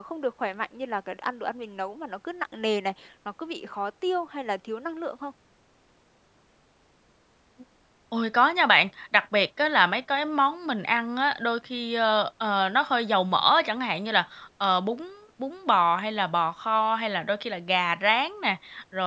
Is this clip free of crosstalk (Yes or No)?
Yes